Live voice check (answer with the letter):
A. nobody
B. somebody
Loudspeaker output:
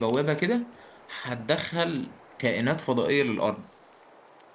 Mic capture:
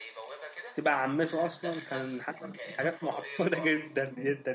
B